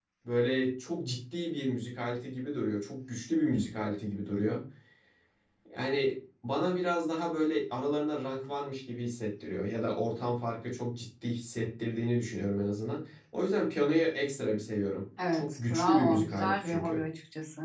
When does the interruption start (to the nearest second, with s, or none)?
15 s